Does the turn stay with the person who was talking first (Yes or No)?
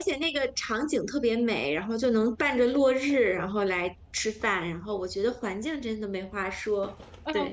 No